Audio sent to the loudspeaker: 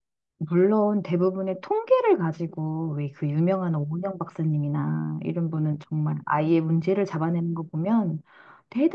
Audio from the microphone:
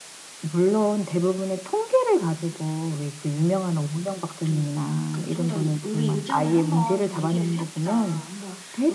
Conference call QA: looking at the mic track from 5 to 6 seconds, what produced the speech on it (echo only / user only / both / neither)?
both